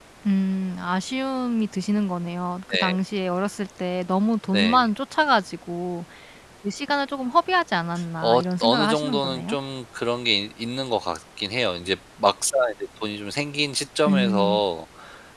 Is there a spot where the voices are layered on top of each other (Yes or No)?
Yes